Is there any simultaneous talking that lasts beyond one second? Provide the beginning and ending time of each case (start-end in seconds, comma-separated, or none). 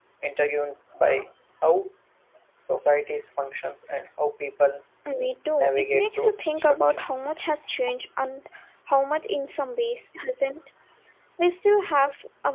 5.6-7.1